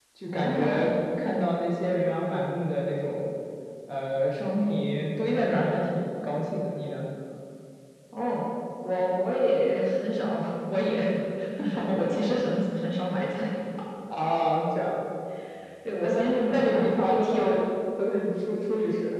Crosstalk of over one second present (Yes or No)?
Yes